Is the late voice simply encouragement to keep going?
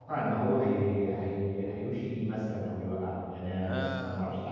No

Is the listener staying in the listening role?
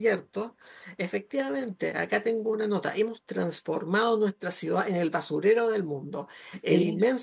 Yes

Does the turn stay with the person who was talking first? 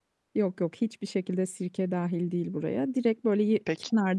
Yes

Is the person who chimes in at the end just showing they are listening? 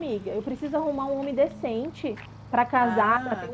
No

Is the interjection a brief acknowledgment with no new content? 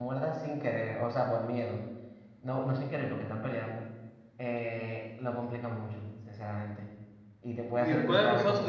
No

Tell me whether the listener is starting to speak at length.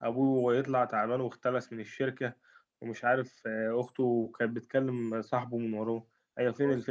Yes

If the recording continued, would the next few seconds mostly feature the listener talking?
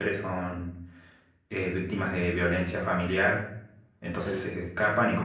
No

